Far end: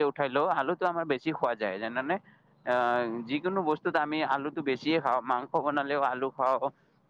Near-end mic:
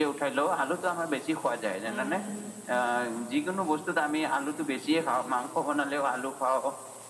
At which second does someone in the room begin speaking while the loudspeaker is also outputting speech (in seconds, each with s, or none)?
1.8 s